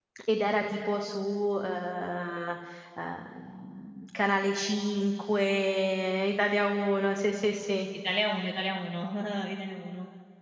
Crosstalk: none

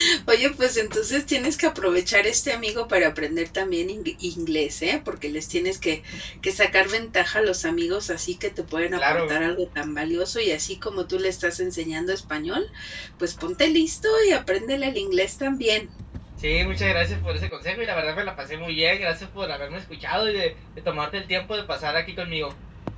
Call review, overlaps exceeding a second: none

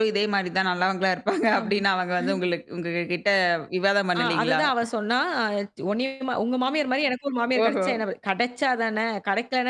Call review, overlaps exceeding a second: none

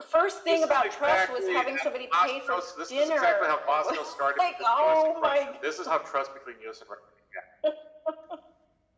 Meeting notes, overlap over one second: present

